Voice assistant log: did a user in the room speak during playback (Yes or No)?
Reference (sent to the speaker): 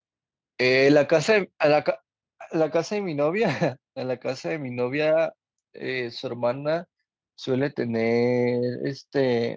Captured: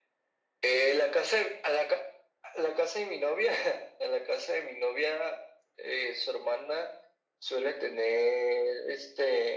No